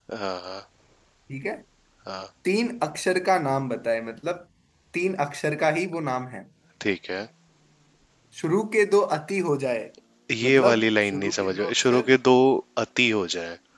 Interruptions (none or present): present